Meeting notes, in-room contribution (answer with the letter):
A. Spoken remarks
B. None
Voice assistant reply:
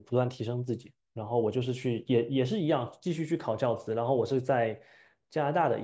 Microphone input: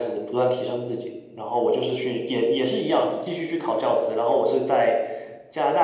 B